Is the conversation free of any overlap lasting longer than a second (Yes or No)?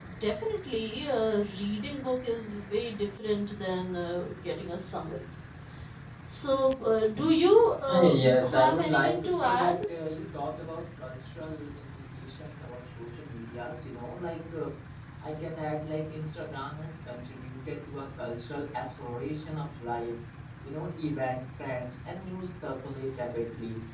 No